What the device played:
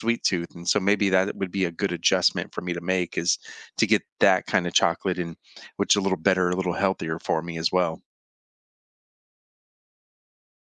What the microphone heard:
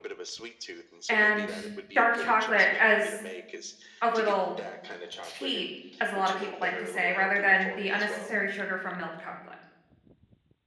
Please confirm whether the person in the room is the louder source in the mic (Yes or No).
Yes